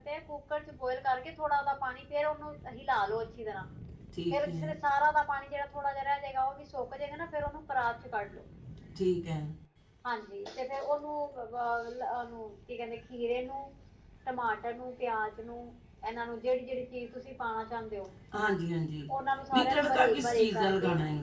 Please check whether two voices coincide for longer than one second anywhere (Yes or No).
Yes